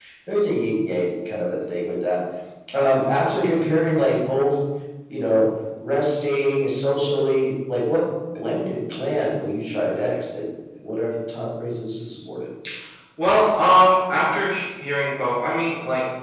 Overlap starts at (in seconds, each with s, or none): none